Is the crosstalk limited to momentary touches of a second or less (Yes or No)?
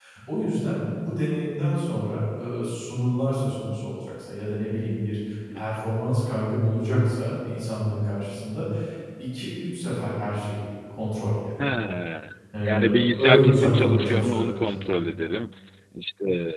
No